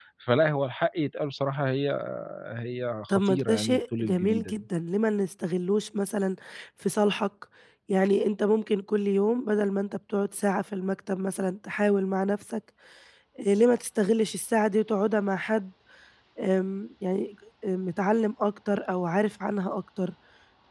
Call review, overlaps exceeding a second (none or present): present